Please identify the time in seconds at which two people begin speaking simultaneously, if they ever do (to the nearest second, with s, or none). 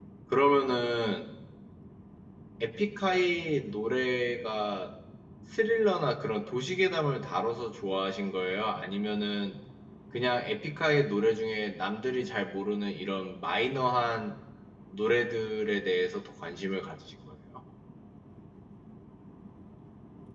none